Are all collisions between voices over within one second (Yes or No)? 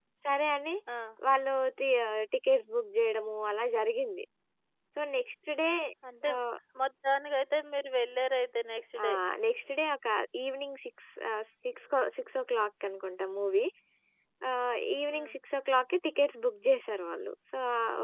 Yes